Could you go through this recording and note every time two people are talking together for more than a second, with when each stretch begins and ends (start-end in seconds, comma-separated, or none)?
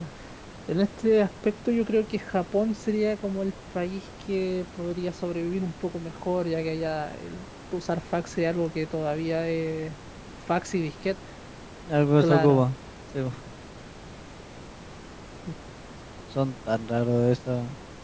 none